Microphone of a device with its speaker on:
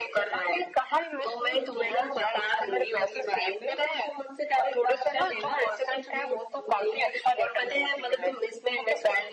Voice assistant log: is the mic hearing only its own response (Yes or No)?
Yes